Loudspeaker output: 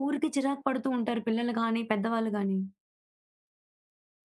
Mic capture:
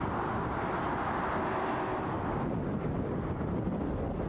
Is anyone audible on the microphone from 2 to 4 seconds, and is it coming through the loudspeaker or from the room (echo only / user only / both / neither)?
neither